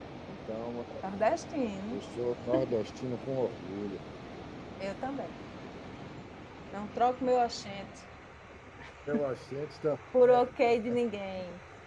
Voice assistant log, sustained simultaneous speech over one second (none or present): none